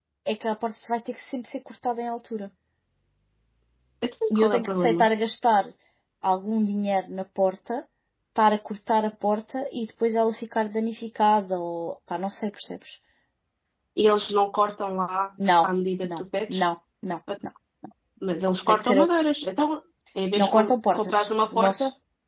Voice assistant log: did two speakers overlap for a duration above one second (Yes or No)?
Yes